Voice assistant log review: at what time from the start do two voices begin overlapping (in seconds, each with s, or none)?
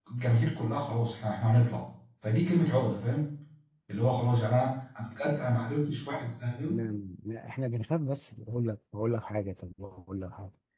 none